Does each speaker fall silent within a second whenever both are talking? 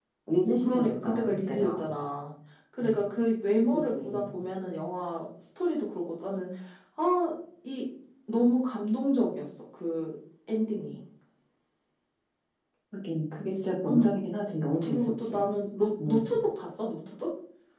No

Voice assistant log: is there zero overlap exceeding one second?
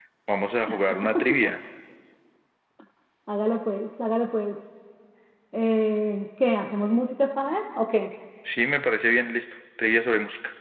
Yes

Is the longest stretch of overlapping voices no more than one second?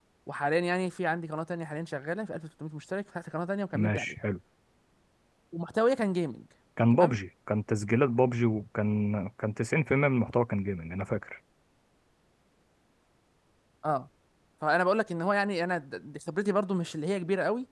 Yes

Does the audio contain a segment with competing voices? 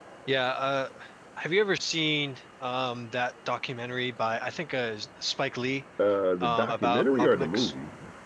Yes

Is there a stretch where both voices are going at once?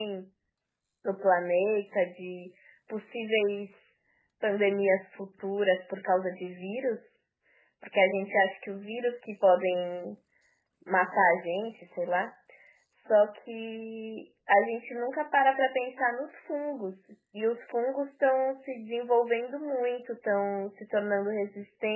No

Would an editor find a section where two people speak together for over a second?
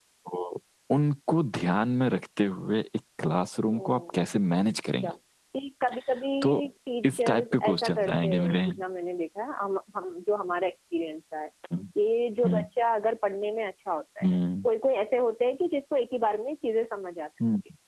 Yes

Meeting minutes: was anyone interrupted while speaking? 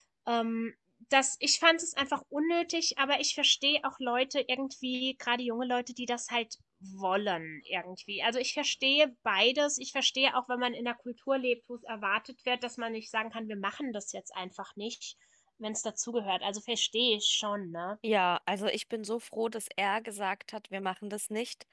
No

